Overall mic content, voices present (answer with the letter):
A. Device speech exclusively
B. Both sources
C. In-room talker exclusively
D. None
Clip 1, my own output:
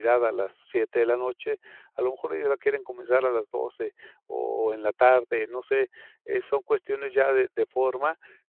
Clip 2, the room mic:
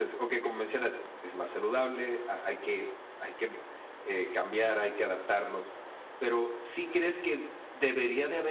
C